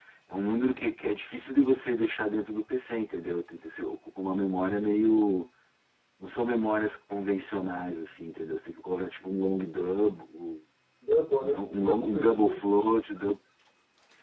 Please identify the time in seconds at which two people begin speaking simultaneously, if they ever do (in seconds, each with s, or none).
11.4 s